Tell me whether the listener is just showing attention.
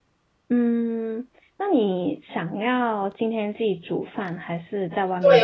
No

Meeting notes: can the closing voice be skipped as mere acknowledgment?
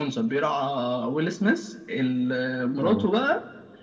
Yes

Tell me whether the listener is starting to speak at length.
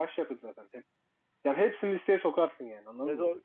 Yes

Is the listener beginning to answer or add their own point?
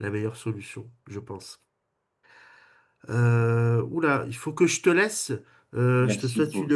No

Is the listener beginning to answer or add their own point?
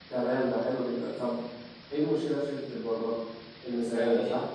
Yes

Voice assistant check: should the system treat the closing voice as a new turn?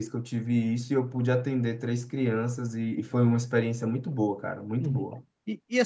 Yes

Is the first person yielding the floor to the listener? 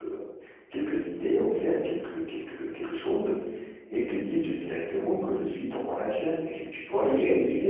No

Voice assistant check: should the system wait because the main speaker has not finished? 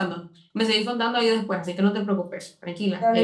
No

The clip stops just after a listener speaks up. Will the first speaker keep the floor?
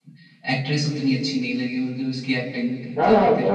No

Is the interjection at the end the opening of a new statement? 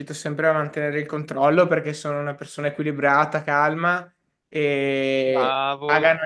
No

